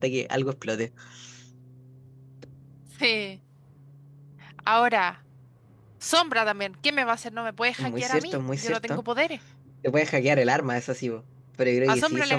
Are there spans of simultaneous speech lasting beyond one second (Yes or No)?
Yes